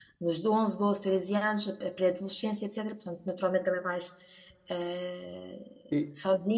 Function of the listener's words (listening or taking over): listening